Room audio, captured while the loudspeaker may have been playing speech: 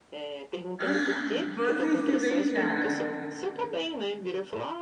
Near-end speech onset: 0.8 s

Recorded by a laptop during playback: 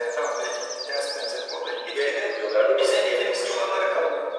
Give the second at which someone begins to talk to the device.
none

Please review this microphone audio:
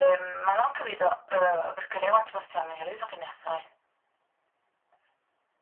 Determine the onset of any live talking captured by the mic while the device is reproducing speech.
none

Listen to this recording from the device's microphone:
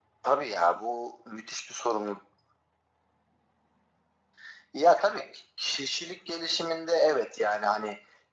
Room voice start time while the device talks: none

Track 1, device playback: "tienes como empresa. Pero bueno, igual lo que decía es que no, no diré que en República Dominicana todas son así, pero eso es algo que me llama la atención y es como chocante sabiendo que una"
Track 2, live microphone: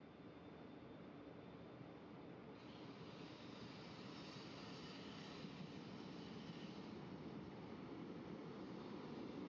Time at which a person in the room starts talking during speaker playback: none

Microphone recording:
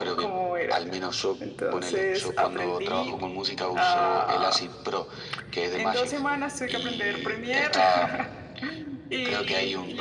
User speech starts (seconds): none

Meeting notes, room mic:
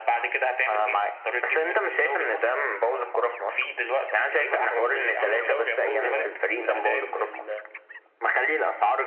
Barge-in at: 4.7 s

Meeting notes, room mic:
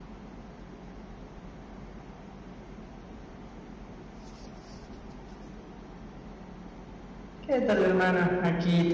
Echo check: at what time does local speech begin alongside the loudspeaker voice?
7.4 s

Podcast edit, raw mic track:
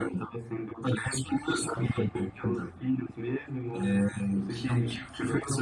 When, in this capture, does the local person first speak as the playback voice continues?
none

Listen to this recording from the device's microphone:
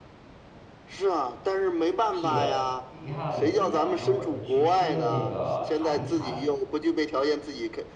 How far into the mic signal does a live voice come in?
2.1 s

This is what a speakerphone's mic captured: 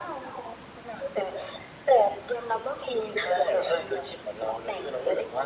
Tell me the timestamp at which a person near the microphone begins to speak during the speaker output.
none

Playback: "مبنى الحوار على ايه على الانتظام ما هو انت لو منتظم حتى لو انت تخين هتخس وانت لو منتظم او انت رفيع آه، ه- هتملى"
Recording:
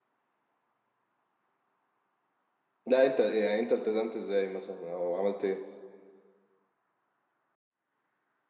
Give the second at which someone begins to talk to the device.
2.9 s

